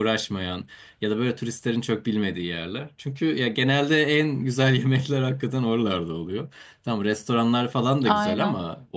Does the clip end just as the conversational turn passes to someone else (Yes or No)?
No